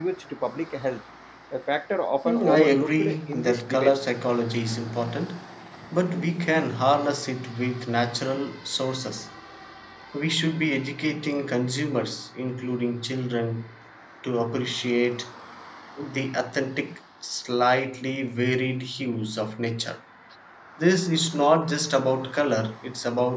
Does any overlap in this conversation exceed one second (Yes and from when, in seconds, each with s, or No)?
Yes, from 2.2 s